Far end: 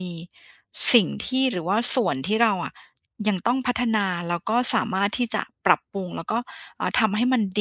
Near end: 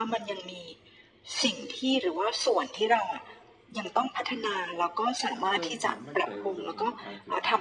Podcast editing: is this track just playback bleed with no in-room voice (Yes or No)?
No